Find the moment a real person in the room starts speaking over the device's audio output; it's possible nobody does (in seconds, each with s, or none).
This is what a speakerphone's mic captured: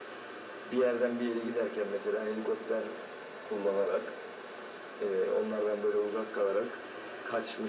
none